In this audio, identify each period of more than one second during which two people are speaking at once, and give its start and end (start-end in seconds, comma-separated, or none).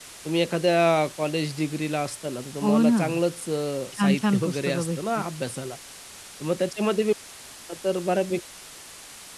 4.0-5.2